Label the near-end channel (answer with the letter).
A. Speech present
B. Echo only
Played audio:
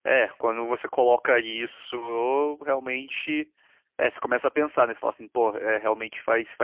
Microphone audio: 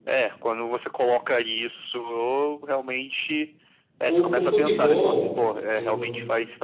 A